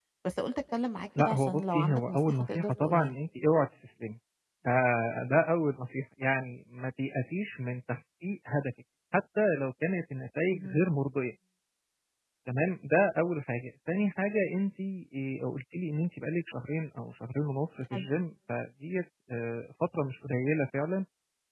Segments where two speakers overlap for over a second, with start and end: 1.2-3.2

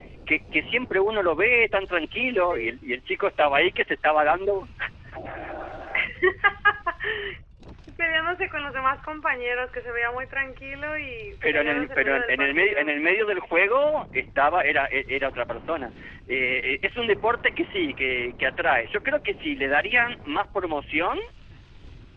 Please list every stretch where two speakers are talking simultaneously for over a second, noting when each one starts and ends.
11.5-12.9

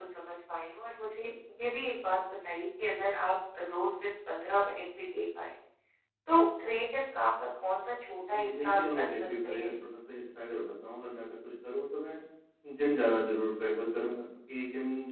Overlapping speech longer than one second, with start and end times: 8.3-9.7

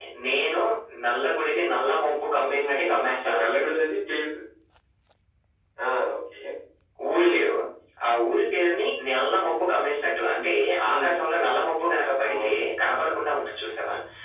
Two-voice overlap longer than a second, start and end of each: 2.4-3.7

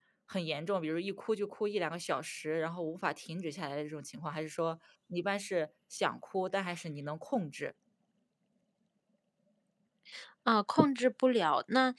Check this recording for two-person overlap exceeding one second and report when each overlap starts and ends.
none

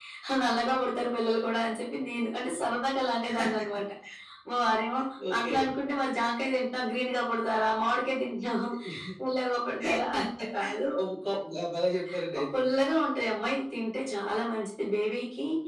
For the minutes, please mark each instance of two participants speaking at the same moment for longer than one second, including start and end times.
none

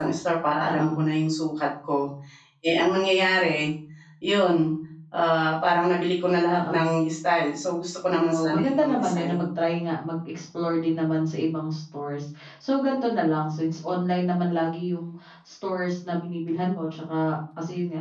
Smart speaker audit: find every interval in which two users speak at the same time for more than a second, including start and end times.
8.3-9.5

